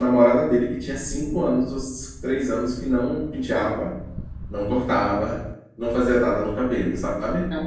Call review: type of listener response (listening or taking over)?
listening